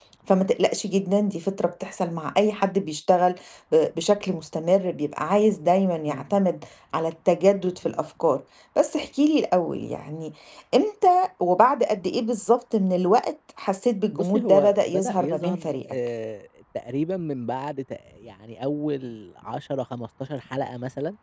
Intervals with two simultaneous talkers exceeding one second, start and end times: 14.1-15.9

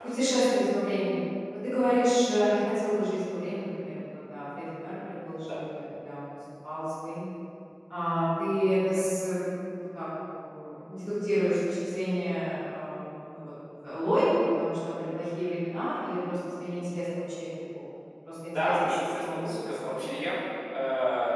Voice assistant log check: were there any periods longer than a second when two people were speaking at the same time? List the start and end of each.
18.6-20.2

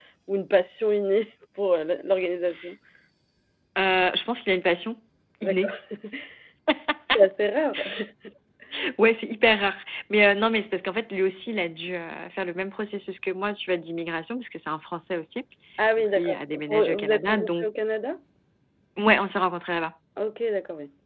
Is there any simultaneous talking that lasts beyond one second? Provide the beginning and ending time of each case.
16.0-17.7

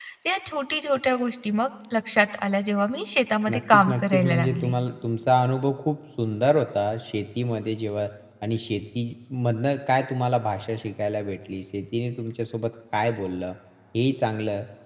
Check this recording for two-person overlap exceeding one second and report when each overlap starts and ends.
3.5-4.7

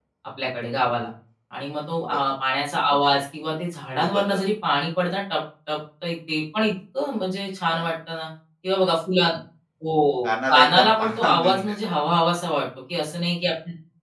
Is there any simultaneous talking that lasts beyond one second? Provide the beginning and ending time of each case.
10.2-11.8

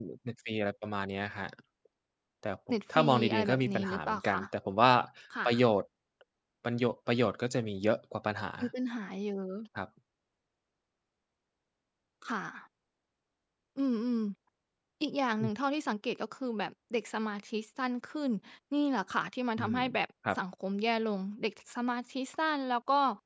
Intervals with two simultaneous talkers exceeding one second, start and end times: 3.0-4.4

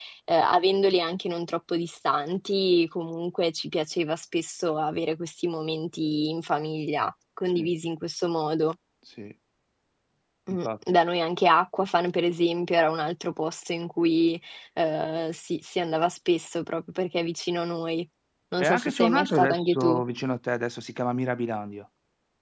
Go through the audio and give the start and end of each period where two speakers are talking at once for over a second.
18.6-20.0

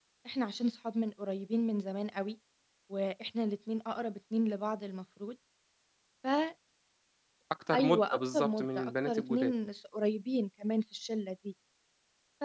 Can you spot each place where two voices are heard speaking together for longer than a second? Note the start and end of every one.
7.7-9.5

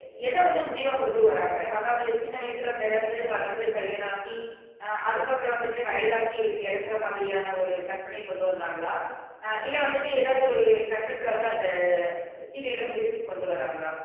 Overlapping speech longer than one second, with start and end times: none

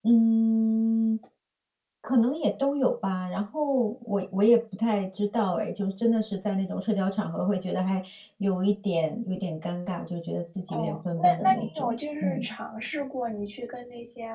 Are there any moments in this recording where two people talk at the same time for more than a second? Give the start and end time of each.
10.7-12.4

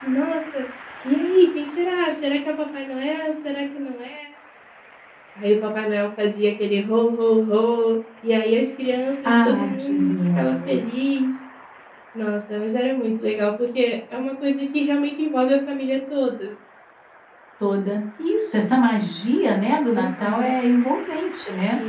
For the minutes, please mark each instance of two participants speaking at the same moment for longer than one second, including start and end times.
9.3-10.8

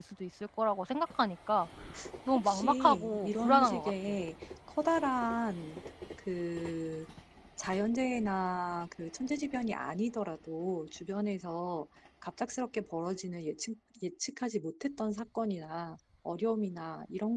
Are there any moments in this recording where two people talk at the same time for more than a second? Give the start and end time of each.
2.4-4.2

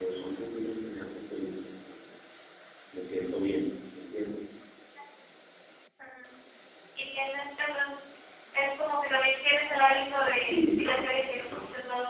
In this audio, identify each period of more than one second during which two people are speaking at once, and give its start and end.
10.4-11.6

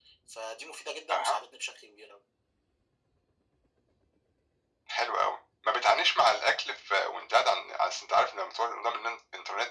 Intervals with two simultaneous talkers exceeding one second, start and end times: none

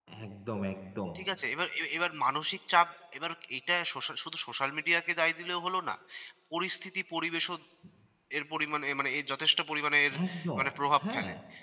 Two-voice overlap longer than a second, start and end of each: none

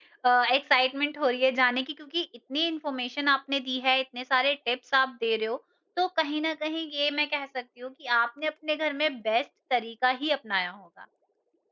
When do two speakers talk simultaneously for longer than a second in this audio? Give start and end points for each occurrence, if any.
none

